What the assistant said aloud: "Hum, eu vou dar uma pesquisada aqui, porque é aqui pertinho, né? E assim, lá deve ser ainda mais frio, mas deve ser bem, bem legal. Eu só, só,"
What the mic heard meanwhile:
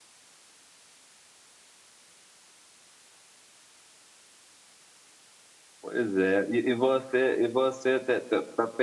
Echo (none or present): none